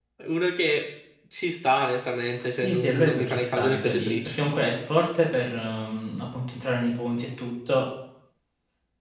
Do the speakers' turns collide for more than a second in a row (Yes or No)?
Yes